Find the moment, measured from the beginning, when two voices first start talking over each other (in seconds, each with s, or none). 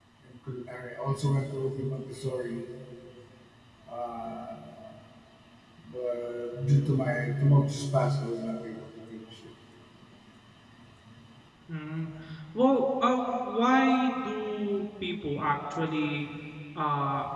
none